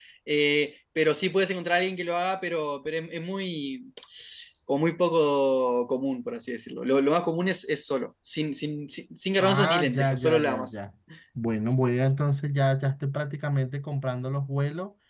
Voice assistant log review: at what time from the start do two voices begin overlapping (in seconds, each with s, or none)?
9.4 s